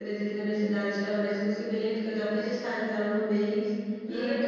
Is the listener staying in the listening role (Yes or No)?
Yes